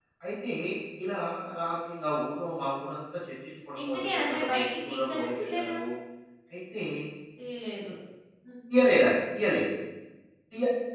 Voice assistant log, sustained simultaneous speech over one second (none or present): present